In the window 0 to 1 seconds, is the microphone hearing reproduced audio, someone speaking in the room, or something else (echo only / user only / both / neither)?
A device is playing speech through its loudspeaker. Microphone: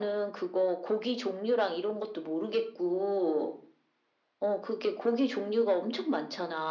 echo only